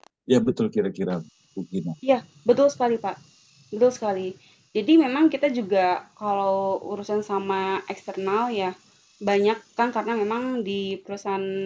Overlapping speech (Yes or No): No